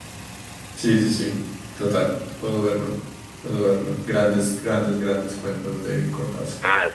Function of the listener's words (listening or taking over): taking over